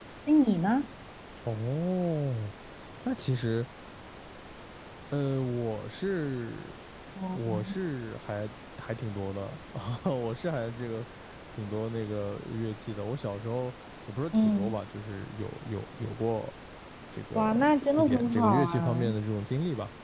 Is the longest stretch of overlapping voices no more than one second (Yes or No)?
No